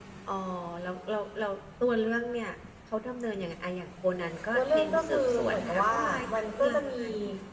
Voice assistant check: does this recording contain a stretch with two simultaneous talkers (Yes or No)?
Yes